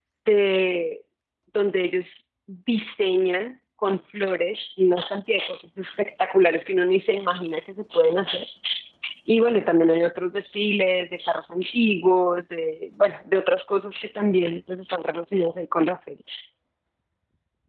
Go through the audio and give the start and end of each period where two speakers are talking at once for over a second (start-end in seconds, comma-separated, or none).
none